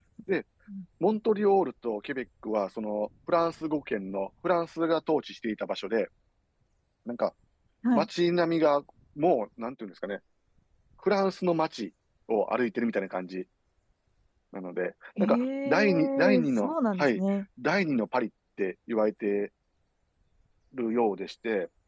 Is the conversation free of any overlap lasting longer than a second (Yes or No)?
No